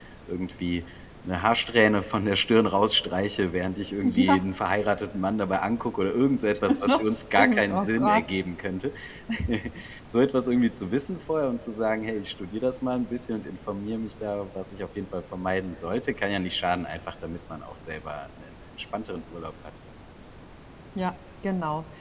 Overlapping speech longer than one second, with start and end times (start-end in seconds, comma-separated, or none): 6.8-8.3